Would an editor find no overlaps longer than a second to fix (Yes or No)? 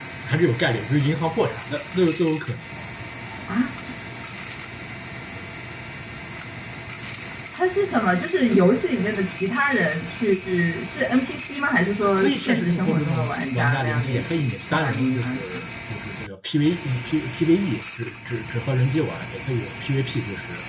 No